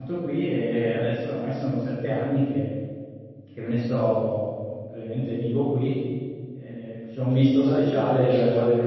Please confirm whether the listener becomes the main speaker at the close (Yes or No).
Yes